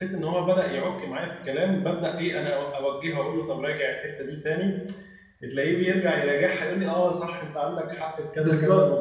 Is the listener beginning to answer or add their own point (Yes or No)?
Yes